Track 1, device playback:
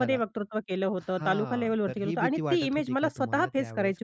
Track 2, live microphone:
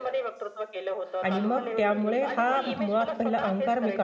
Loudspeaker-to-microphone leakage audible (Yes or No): Yes